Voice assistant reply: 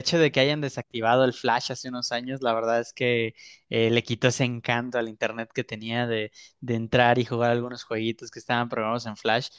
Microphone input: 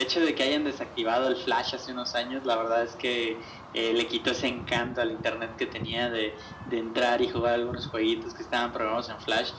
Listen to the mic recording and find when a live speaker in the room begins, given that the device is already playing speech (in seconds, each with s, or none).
none